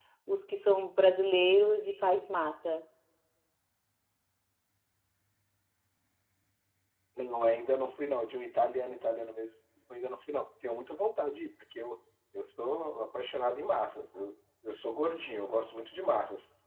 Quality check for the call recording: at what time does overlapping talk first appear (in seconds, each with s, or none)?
none